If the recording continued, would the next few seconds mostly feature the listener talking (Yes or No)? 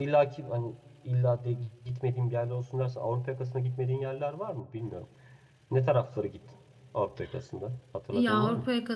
Yes